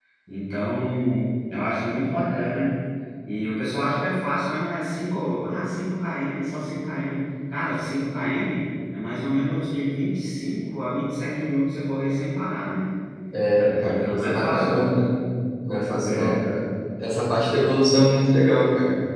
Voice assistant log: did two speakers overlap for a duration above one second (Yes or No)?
Yes